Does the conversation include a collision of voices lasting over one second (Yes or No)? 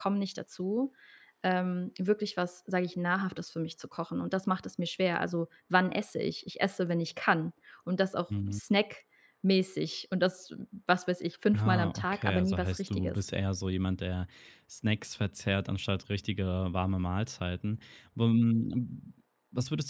Yes